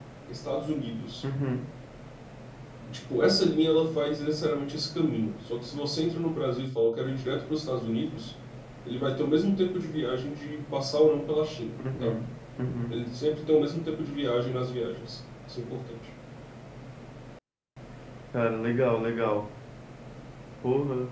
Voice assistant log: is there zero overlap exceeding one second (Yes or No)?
Yes